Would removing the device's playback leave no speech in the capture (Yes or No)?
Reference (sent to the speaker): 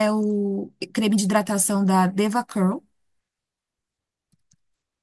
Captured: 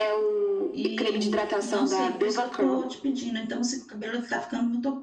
No